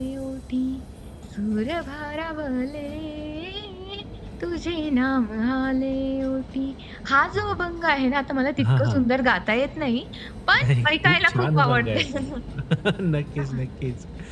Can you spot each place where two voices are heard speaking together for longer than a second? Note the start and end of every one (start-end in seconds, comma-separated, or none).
10.5-12.0